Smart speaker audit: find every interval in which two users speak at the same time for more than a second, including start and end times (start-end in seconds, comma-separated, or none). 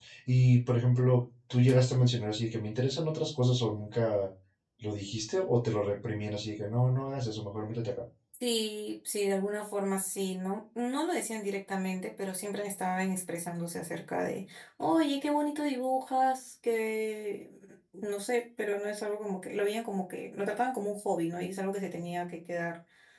none